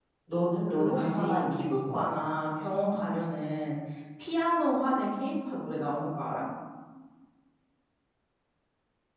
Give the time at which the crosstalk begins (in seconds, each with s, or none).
0.7 s